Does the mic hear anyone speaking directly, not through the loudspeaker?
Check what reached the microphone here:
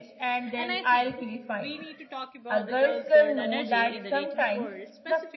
Yes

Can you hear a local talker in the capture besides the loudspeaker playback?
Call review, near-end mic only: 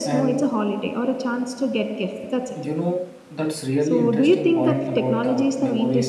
Yes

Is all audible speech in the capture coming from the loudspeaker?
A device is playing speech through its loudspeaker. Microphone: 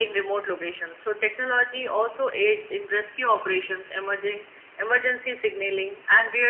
Yes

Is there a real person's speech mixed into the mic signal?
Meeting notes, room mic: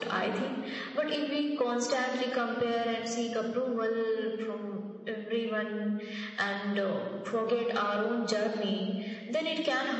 No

